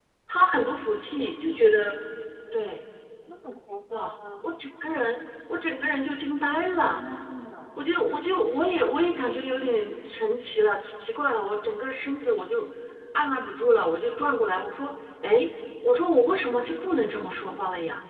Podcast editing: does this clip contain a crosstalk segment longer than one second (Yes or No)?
No